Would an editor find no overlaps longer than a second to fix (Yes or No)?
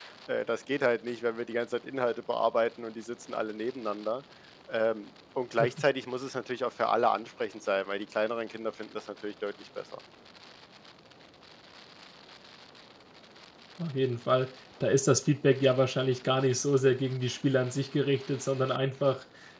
Yes